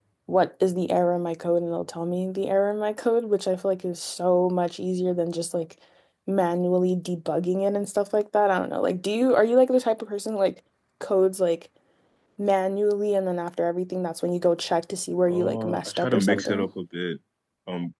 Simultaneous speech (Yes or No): Yes